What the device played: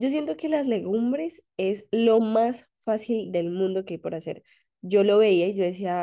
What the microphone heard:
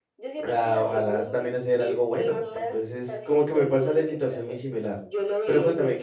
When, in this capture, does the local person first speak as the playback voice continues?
0.4 s

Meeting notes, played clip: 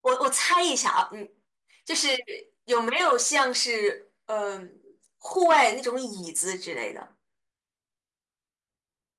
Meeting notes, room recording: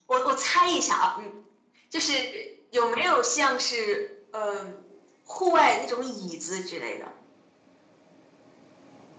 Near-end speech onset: none

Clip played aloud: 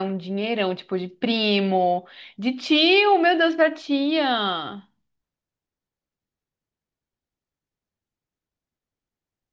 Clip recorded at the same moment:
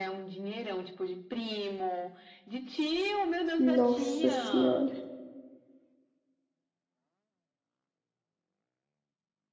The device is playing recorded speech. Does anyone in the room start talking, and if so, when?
3.6 s

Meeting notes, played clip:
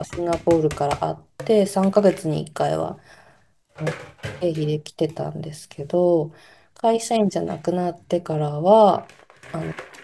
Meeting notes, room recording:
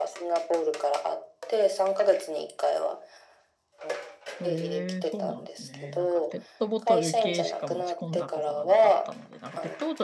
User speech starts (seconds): 4.4 s

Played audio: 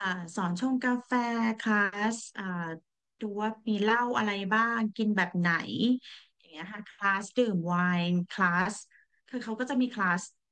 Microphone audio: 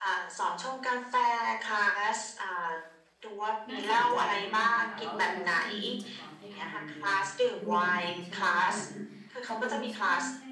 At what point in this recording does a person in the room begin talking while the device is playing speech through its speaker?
3.7 s

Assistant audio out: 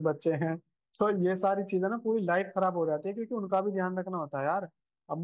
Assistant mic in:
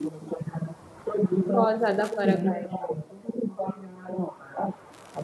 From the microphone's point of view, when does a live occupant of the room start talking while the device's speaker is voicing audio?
1.5 s

